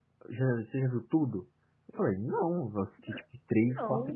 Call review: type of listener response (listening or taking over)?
listening